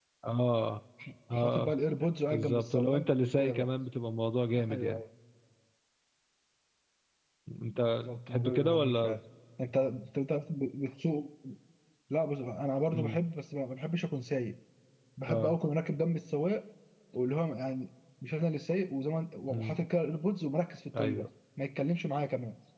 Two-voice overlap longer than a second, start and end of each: 2.3-3.7, 7.6-9.2

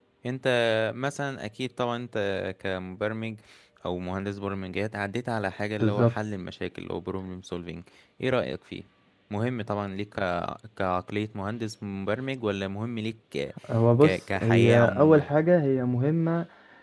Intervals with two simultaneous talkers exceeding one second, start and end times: 14.0-15.2

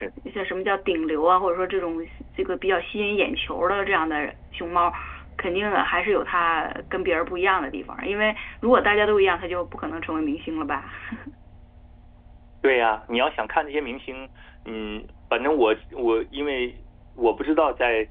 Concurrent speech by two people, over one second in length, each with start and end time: none

